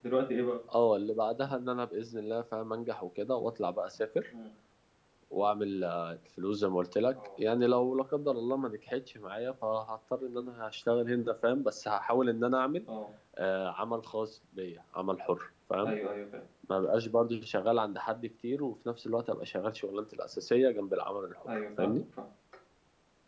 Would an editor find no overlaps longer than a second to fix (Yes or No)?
Yes